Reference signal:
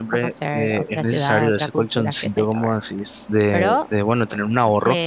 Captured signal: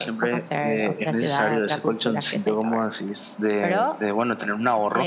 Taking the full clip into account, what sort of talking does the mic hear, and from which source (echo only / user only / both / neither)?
echo only